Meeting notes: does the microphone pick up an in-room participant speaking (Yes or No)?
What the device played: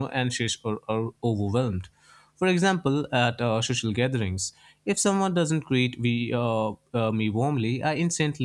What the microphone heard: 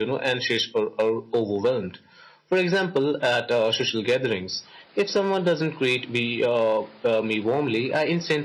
No